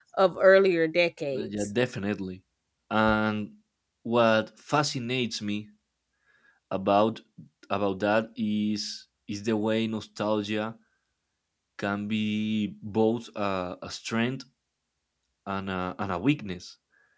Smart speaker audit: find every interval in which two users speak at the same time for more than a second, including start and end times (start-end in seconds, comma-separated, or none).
none